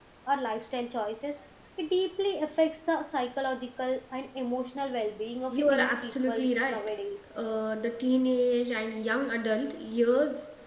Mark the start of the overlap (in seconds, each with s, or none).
5.5 s